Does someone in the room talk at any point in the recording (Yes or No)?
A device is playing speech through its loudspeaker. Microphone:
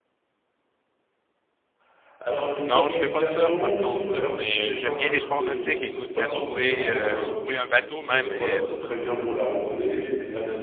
Yes